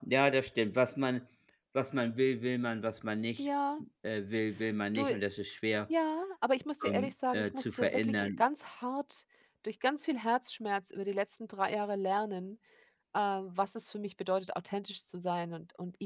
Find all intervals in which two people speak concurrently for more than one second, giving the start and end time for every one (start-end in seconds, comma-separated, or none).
6.9-8.4